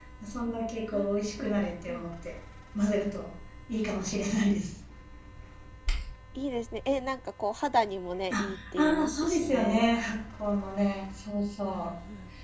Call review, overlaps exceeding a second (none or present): present